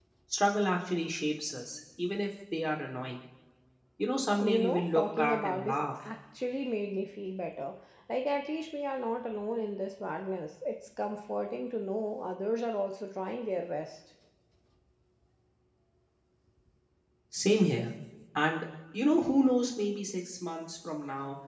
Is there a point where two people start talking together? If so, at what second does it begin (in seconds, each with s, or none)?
4.4 s